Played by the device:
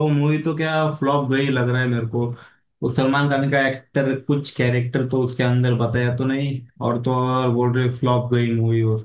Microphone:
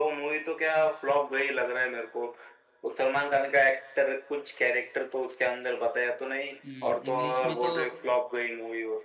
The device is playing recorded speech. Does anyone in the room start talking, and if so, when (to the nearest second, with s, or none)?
7 s